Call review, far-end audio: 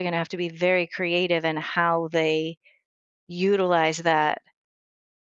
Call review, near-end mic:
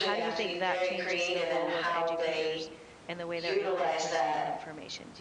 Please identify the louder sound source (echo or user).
echo